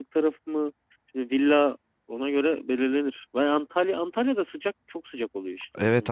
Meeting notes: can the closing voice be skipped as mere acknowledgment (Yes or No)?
No